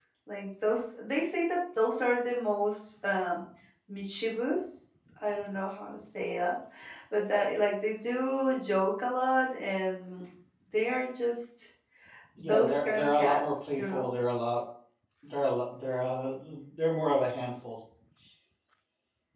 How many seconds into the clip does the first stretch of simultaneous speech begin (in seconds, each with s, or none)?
12.4 s